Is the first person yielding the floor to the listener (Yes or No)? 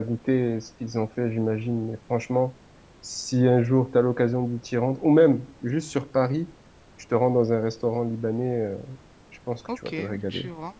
Yes